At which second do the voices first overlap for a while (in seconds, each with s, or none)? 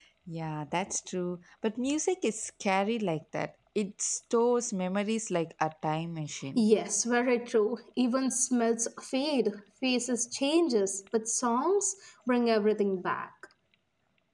none